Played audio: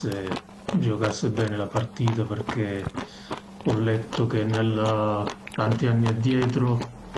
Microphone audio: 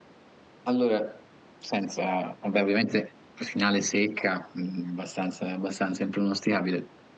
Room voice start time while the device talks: 0.6 s

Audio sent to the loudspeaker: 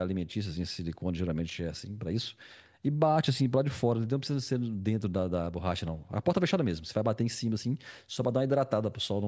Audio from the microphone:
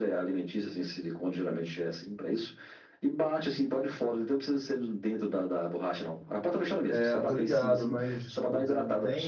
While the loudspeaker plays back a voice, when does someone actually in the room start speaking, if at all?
6.9 s

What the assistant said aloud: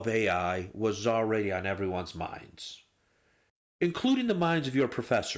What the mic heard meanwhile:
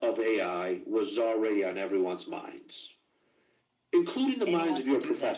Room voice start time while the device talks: 4.5 s

